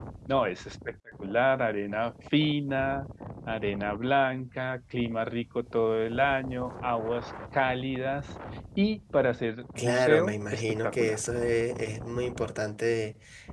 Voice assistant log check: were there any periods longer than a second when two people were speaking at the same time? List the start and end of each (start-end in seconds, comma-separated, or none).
9.8-11.2